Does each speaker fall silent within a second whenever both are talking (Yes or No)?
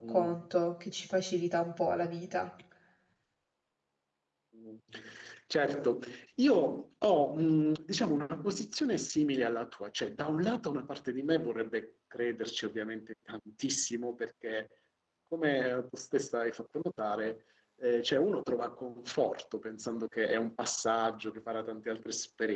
Yes